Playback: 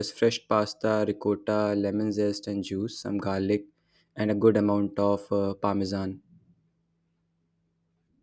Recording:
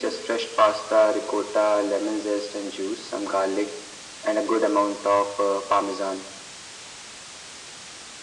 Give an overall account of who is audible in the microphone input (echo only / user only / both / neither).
echo only